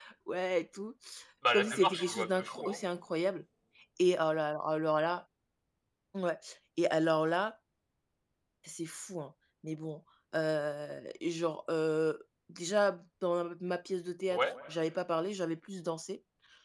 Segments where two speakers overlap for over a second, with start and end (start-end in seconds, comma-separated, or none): 1.5-2.8